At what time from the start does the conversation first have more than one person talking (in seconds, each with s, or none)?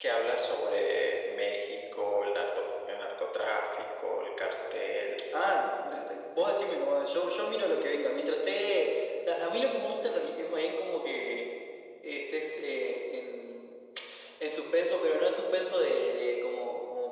none